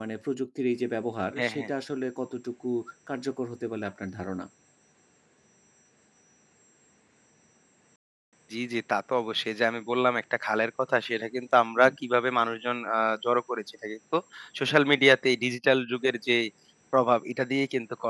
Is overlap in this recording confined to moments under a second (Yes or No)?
Yes